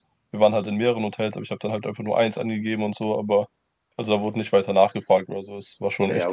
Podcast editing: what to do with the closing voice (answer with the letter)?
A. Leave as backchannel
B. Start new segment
B